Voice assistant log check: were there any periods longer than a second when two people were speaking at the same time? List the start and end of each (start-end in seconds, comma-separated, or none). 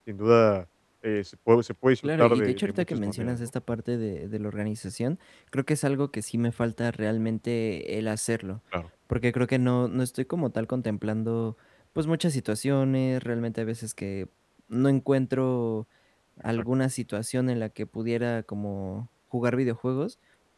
2.0-3.5